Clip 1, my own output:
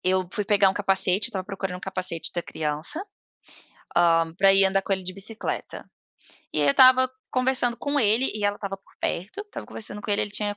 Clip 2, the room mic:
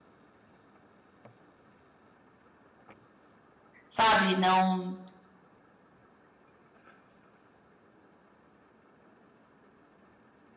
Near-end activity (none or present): present